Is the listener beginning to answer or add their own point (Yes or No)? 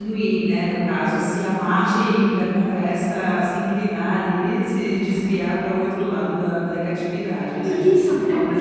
Yes